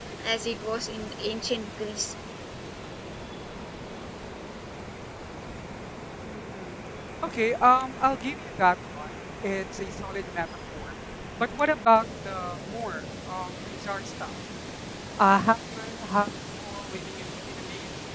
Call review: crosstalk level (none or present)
none